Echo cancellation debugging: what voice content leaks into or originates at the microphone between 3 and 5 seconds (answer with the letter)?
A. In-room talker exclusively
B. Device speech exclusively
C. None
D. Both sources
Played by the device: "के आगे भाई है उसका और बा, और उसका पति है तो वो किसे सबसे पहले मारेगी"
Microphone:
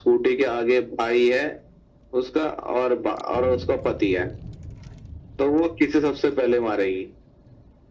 B